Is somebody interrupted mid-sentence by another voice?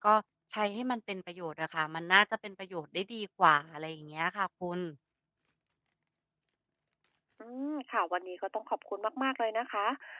No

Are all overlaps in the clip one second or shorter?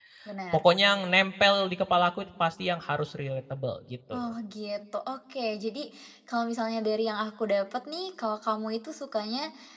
Yes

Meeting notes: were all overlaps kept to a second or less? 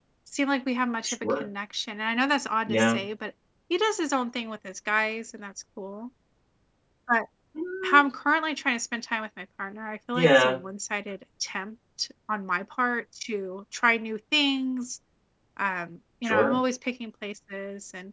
Yes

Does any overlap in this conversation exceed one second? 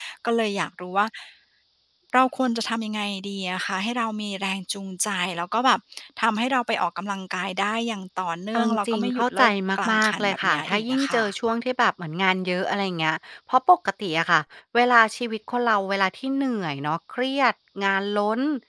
Yes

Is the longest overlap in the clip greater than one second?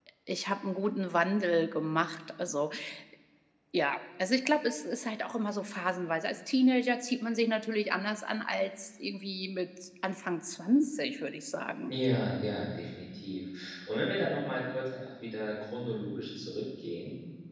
No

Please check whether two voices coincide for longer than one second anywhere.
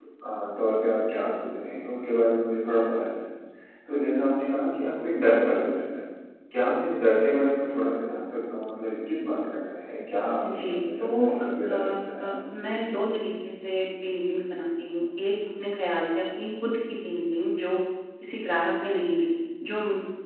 Yes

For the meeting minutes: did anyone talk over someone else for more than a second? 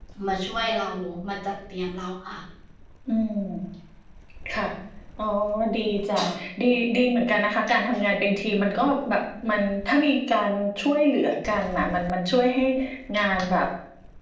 No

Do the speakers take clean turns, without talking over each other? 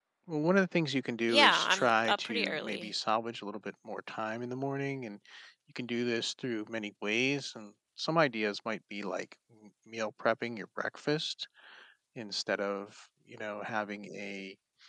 No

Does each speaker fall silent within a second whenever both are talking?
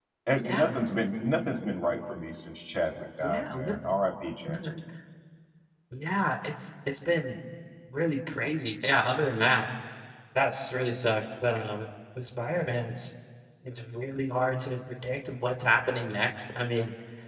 Yes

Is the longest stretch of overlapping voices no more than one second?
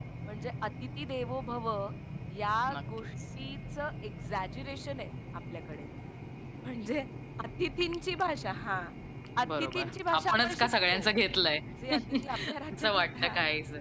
No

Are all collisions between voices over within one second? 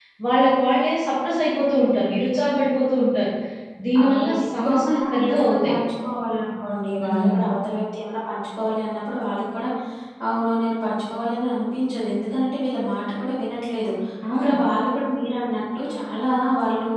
No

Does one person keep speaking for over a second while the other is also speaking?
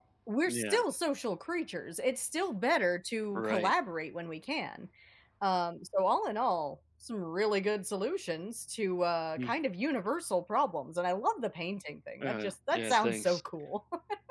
Yes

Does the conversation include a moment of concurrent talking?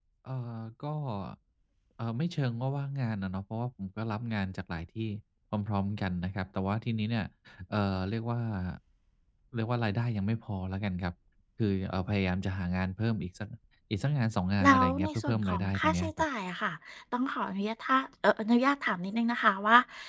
Yes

